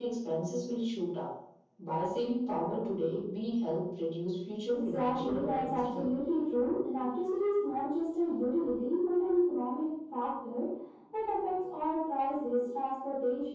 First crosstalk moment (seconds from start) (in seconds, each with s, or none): 4.7 s